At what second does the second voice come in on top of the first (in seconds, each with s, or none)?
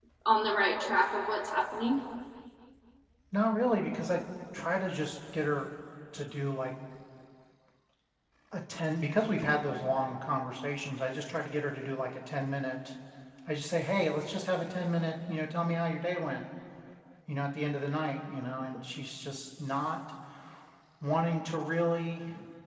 none